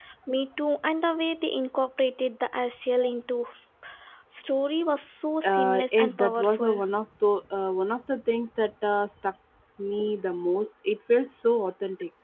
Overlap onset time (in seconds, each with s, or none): 5.4 s